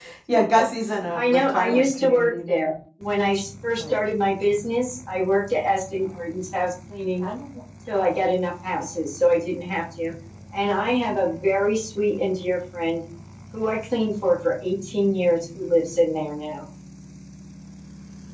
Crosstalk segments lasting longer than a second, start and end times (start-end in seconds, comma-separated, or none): 1.1-2.7